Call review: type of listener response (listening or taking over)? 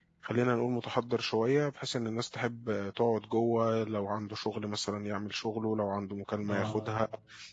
listening